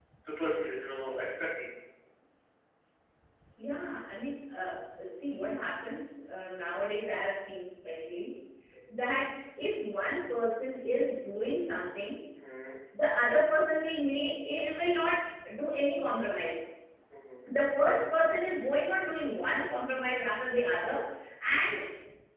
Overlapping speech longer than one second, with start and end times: none

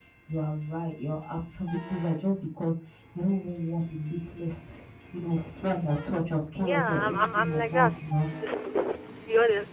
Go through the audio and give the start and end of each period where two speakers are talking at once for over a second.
6.6-7.9

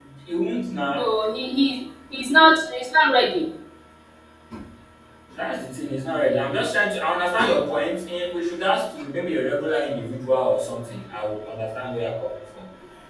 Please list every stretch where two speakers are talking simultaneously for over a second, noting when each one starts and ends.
none

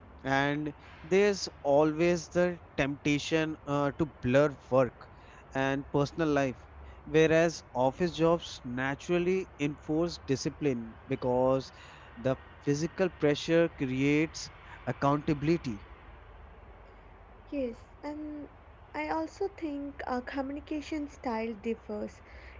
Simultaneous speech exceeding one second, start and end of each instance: none

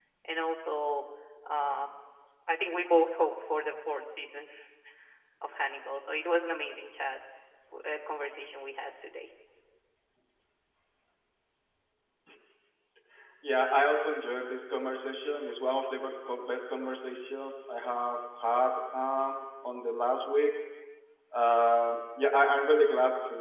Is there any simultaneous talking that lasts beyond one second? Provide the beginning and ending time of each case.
none

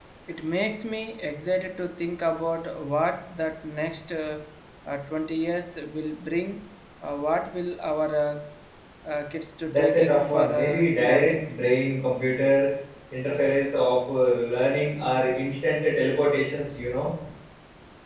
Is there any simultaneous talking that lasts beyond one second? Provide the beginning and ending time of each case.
9.7-11.4

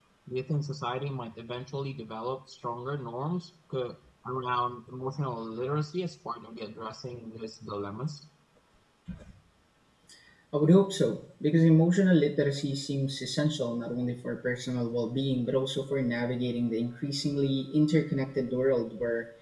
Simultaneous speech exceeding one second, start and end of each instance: none

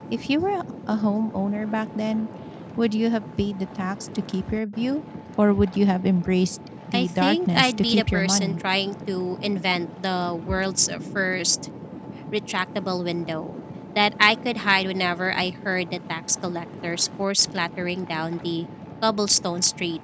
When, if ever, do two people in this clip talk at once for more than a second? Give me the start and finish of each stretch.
6.9-8.5

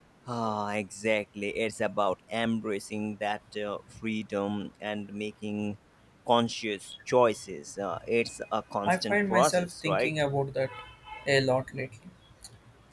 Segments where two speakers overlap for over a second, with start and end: 8.8-10.1

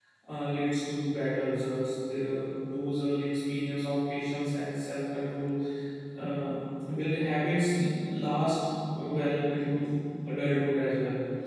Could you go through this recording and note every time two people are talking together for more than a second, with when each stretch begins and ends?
none

